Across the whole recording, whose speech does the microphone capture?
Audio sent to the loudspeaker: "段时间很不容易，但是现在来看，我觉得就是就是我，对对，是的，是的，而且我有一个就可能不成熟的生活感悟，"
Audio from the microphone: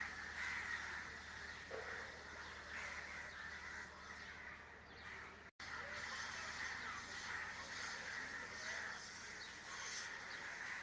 neither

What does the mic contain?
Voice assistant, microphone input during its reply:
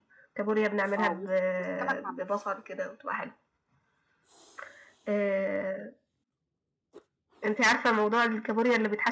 both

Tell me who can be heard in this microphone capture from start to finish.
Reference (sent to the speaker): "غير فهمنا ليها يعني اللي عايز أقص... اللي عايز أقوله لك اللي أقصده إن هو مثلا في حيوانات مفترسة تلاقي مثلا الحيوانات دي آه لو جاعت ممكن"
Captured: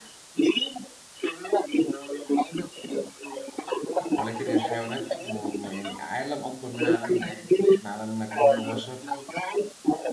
both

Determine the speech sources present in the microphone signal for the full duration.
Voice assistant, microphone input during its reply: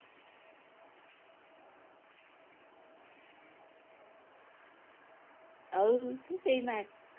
user only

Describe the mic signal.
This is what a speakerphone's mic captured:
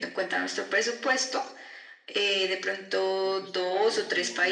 both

